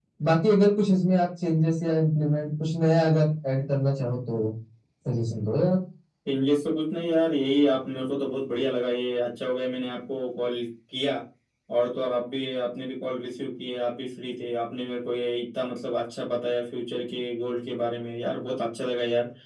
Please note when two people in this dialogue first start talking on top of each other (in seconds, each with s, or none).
none